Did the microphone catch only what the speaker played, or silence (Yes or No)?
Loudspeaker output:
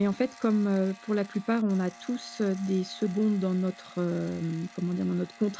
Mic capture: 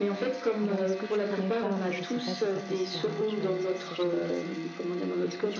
No